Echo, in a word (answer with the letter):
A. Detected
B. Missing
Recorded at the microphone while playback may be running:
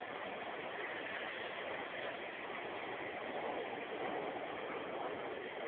B